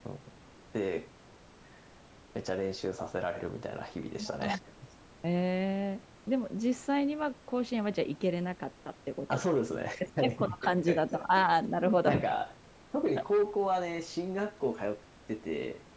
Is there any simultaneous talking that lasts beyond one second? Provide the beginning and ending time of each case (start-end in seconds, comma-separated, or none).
10.0-11.2